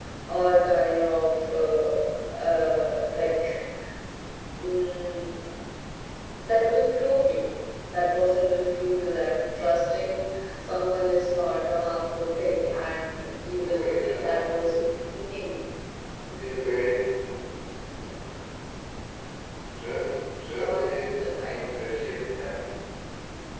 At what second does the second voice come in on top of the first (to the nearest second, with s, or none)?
13 s